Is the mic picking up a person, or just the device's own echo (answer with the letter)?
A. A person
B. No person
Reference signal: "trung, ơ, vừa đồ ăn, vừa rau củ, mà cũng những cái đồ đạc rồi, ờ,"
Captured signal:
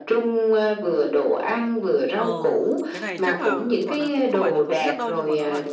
A